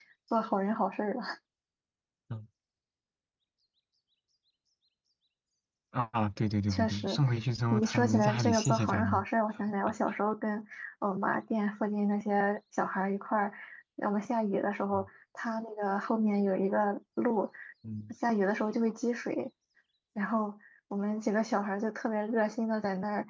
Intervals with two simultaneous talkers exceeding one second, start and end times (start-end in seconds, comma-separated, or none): 7.7-9.2